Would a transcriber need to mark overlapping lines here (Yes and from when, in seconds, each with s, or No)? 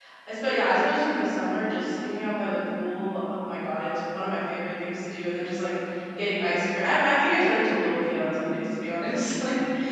No